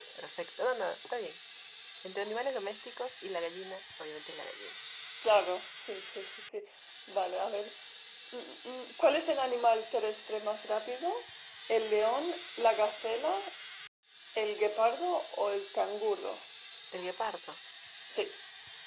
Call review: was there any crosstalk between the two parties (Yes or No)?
No